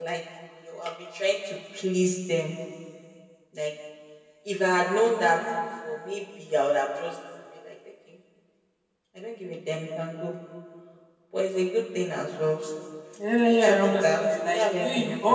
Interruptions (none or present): present